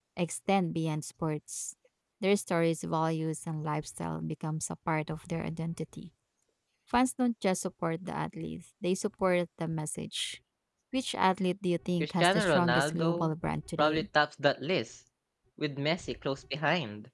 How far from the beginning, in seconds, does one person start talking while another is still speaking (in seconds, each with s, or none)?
12.0 s